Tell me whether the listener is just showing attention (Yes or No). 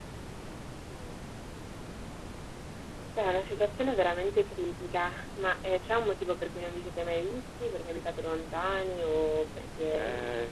No